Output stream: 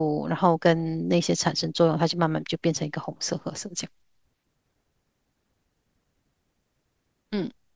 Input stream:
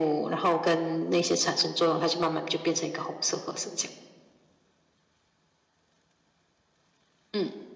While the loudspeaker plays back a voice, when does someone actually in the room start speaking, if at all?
none

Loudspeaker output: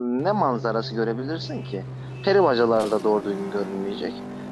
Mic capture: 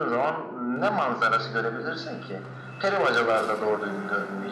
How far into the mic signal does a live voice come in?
none

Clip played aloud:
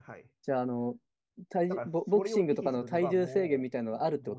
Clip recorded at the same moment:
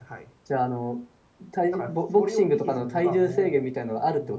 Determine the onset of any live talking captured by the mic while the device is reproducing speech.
none

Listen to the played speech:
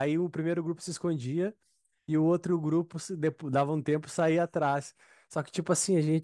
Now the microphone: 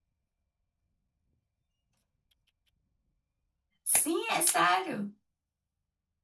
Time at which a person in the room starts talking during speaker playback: 3.8 s

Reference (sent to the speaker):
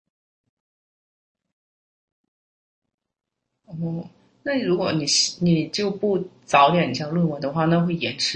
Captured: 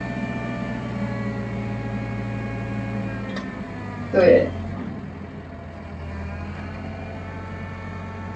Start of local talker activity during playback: 4.1 s

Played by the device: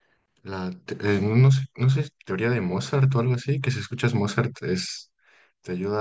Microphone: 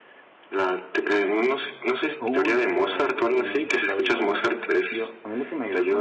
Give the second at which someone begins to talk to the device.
2.2 s

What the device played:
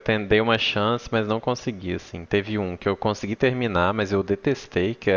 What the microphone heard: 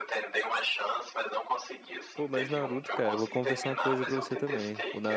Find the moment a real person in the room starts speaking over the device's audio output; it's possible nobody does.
2.1 s

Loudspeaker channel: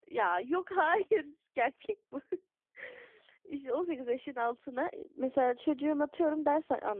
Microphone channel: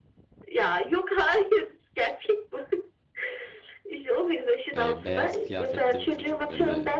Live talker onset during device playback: 4.7 s

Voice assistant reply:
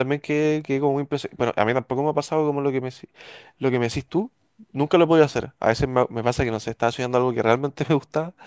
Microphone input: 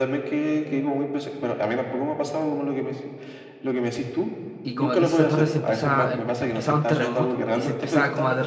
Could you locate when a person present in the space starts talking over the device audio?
4.6 s

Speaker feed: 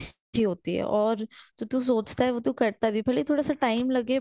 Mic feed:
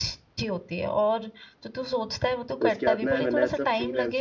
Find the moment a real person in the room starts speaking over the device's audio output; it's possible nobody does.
2.6 s

